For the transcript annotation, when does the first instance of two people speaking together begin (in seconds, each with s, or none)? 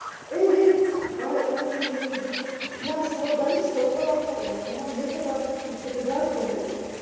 none